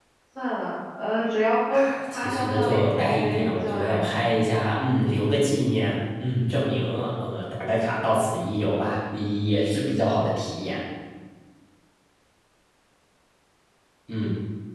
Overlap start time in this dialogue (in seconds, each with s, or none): 1.7 s